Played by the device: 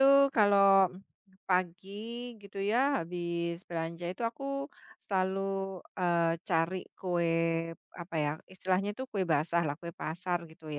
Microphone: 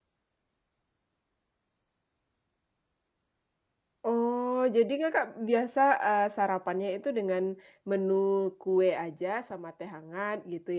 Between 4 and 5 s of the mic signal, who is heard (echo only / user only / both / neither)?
user only